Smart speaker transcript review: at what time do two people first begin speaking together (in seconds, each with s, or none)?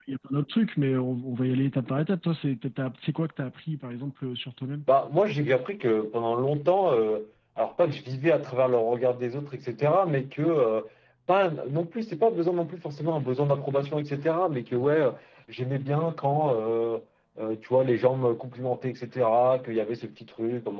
none